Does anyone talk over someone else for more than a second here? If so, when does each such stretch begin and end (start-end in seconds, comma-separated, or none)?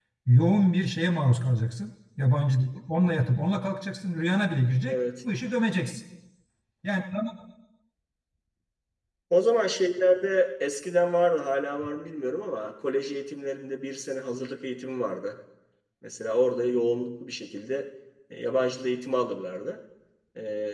none